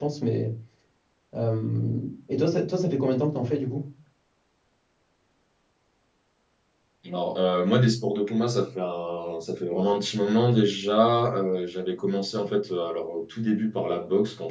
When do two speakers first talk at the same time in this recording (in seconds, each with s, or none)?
none